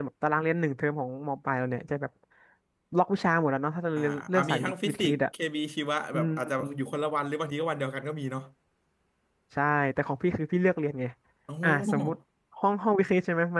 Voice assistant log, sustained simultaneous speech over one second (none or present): present